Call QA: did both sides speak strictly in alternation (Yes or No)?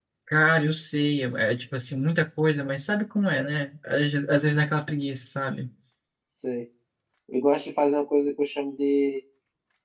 Yes